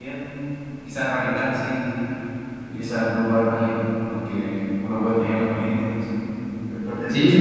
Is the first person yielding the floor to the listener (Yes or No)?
Yes